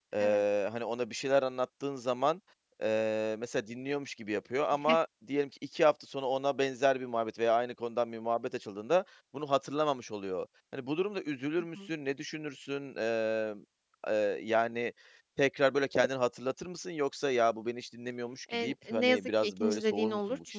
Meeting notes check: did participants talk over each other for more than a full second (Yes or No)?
Yes